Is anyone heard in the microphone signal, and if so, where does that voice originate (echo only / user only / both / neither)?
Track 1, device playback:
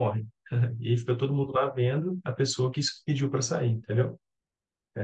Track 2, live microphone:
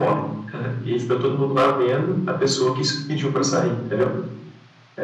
echo only